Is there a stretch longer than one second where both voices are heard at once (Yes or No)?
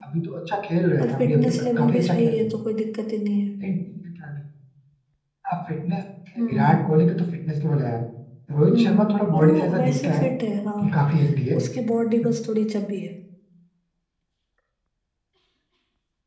Yes